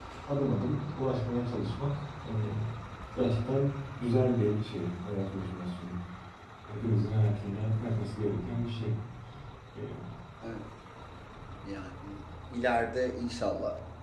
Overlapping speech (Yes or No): No